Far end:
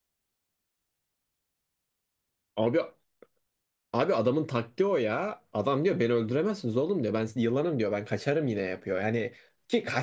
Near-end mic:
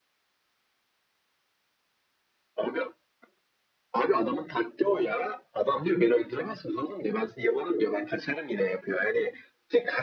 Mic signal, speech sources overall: echo only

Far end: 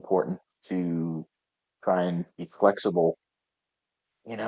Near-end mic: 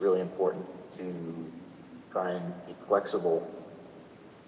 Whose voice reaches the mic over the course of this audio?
echo only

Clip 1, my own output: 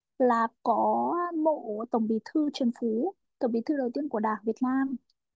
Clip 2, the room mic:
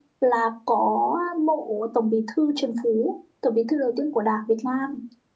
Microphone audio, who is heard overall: echo only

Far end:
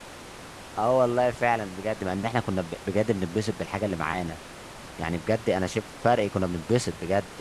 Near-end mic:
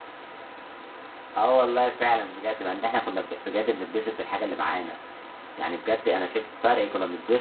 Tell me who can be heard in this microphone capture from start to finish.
echo only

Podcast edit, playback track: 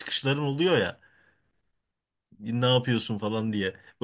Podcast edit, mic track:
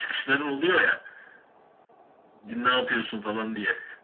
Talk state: echo only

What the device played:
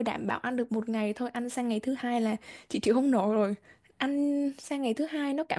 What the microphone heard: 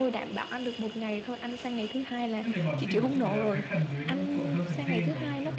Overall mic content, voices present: both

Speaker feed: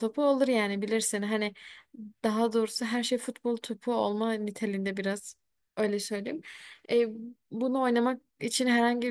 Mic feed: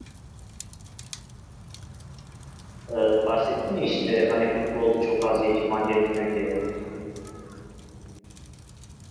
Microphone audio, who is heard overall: user only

